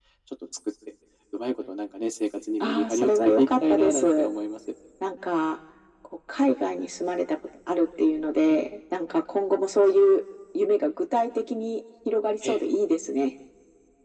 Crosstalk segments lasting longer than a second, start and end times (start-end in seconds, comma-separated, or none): 2.6-4.3